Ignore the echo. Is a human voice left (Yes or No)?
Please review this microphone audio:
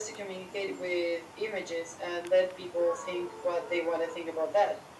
No